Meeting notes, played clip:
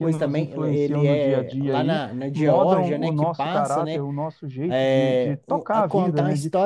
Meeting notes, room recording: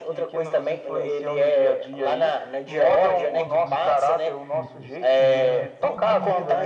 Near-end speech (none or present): present